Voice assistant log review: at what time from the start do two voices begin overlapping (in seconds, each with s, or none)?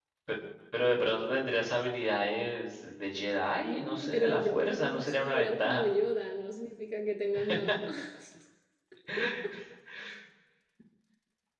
3.6 s